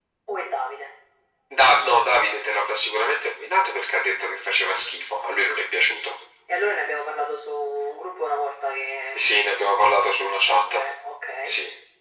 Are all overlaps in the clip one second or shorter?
Yes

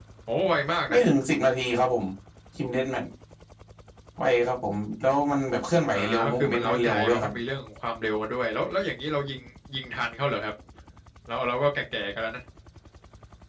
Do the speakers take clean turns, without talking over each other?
No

